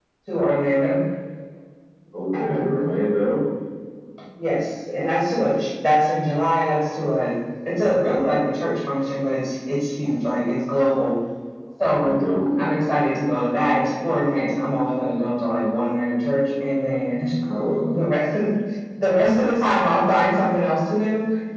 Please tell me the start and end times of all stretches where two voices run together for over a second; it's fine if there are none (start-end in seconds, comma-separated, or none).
none